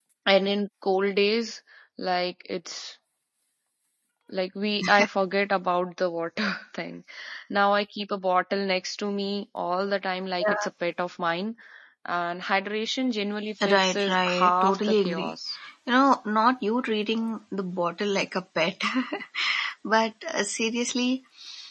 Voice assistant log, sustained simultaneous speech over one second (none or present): present